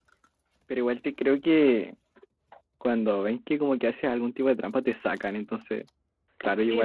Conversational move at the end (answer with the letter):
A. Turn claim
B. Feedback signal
A